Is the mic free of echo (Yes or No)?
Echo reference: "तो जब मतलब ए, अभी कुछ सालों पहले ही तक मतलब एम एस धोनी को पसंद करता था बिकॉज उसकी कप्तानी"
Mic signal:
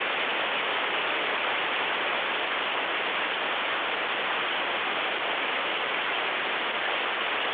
Yes